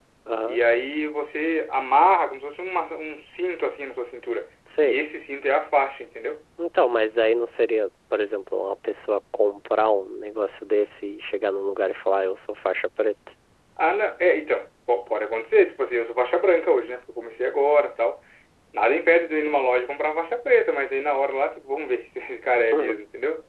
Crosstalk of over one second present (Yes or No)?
No